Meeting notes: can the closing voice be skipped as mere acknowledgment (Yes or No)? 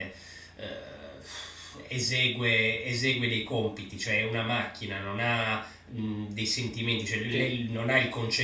Yes